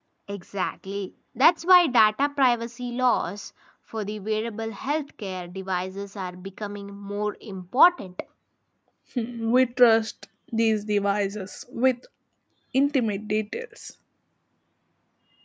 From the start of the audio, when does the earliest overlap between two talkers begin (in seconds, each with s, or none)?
none